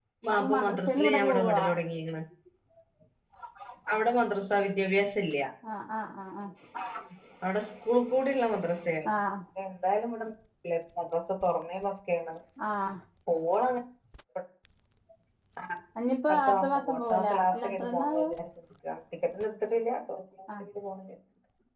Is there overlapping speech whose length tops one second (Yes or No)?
Yes